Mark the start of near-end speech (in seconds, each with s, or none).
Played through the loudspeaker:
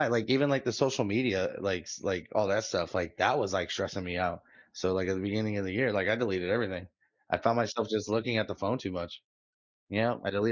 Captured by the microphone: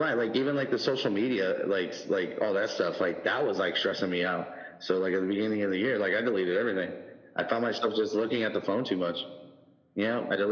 none